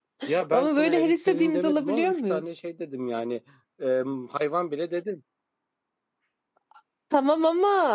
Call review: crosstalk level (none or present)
present